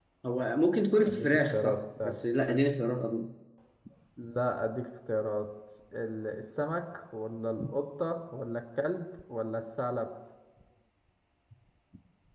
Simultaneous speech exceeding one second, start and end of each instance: 0.9-2.2

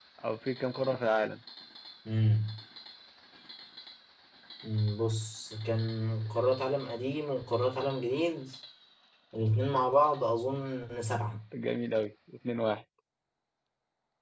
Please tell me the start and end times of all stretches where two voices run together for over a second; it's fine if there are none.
none

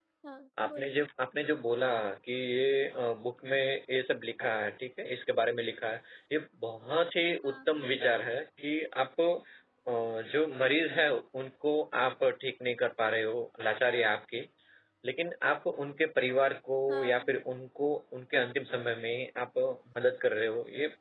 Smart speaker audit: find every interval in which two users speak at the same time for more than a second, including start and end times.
none

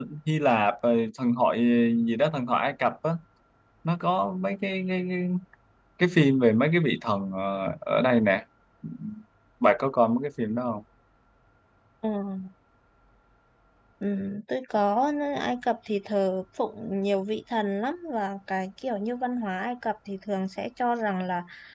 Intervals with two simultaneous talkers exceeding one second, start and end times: none

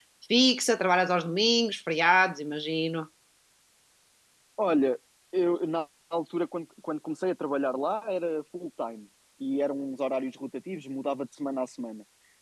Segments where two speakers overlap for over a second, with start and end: none

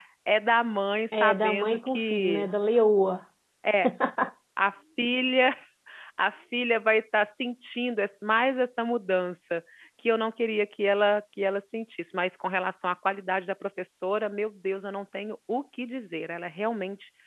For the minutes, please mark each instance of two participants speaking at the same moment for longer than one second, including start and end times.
1.1-2.5

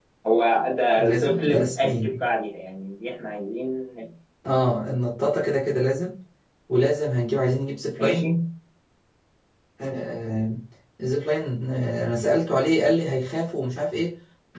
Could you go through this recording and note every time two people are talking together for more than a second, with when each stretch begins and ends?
1.0-2.2

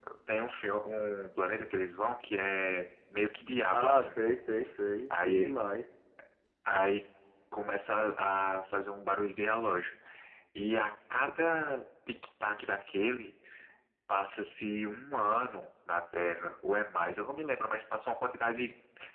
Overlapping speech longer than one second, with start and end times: none

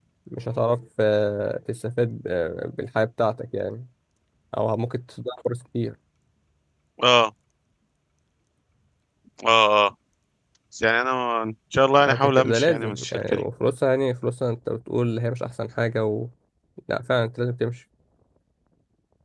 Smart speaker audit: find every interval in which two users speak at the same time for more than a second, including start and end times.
12.0-13.4

